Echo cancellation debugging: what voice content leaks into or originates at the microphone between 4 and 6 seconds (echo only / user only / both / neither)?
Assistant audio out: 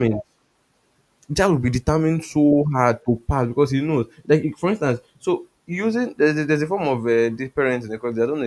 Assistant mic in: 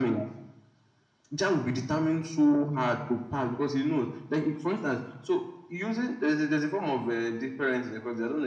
echo only